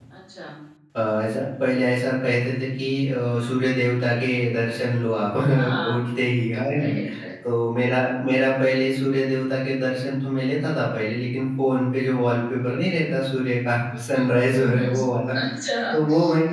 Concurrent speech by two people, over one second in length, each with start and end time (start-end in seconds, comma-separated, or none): none